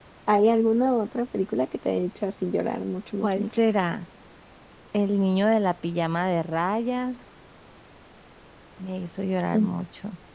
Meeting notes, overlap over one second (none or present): none